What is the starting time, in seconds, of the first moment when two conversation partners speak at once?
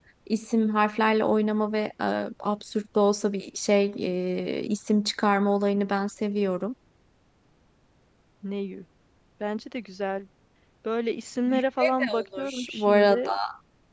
11 s

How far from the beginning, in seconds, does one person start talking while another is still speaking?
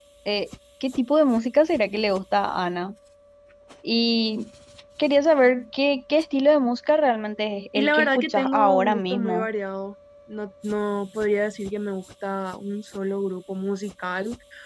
8 s

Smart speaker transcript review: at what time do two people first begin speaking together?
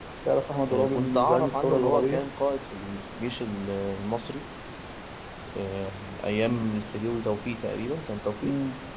1 s

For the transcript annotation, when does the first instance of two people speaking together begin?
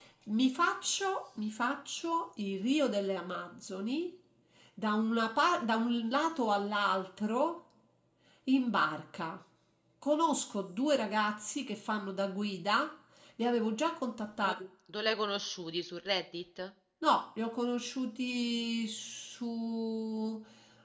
none

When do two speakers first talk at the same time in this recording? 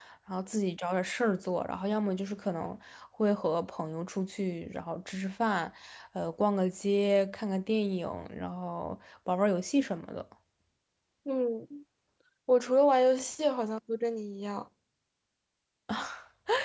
none

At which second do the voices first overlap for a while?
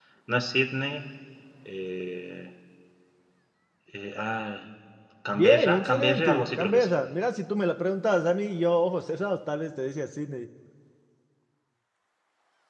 5 s

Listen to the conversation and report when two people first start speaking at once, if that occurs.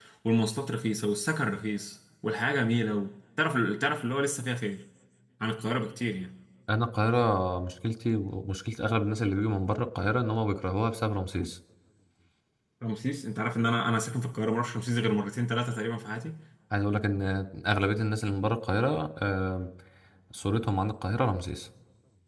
none

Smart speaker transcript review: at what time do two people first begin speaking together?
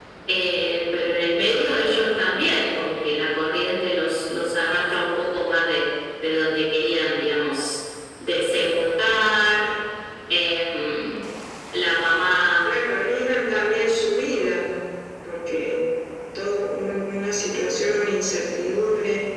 none

